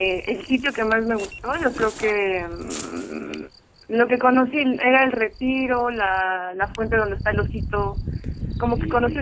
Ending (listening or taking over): taking over